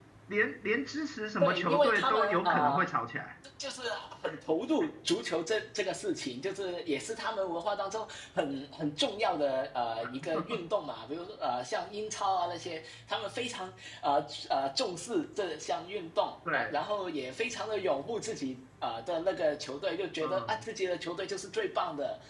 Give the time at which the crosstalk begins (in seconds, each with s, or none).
1.4 s